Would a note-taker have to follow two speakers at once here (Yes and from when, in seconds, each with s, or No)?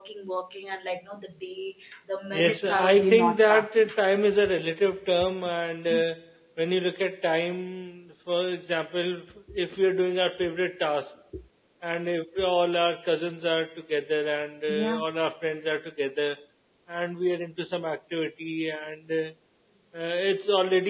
Yes, from 2.3 s